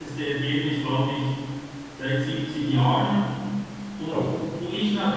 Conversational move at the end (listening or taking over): listening